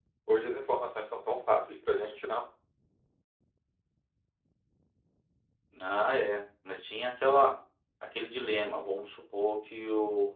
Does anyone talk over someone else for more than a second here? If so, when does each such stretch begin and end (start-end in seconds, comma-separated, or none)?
none